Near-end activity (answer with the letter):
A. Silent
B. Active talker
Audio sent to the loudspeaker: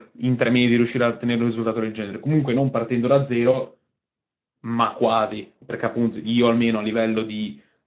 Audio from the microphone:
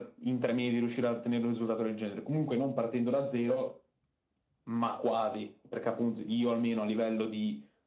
A